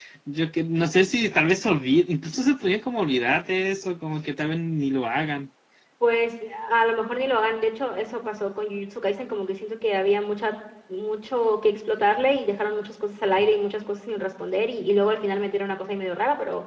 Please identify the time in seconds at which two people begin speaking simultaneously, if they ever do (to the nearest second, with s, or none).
none